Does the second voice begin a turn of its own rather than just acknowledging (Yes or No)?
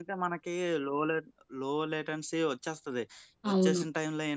No